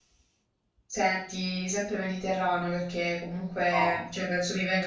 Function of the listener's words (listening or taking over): listening